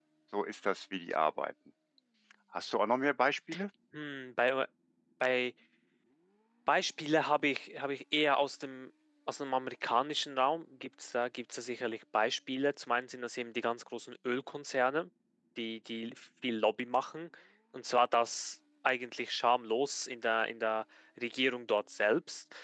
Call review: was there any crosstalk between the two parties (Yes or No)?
No